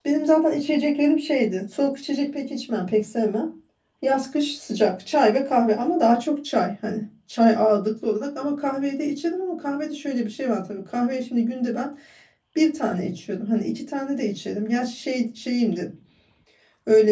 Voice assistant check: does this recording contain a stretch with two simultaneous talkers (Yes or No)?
No